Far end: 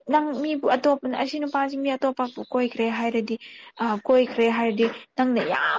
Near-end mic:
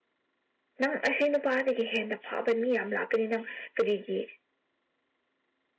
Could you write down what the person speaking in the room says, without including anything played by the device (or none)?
ꯅꯪ ꯑꯁꯤ ꯅꯨꯄꯥꯗꯒꯤ ꯍꯦꯟꯅ ꯐꯥꯕ ꯃꯤ ꯌꯥꯝ ꯂꯥꯛꯀꯅꯤ ꯅꯪ ꯀꯔꯤꯒꯤ